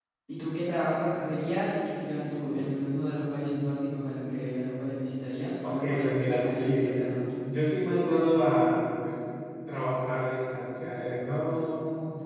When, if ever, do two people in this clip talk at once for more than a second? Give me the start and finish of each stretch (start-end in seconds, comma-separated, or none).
5.6-6.9